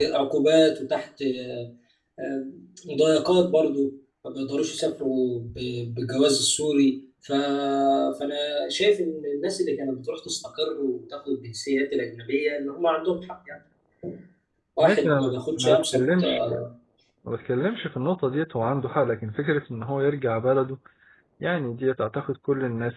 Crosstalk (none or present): present